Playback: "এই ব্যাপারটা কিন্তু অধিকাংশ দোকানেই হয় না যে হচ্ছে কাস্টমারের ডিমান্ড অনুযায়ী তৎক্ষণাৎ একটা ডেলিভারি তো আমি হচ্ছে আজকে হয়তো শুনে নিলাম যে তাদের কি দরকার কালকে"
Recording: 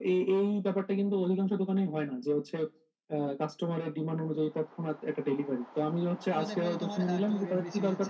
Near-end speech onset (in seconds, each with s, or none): 6.3 s